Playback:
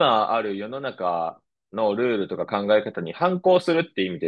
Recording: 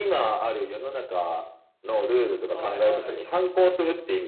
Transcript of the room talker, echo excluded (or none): いはい。